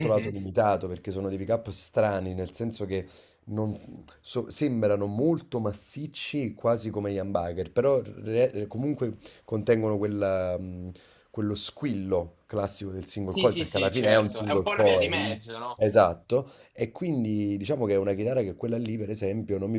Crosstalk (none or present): present